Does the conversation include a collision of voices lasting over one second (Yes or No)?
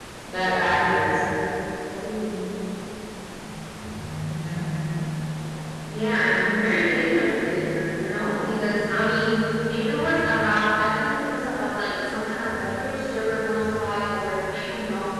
No